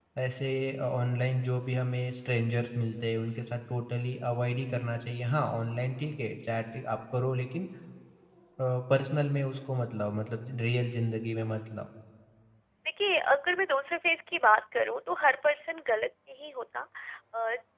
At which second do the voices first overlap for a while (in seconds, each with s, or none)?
none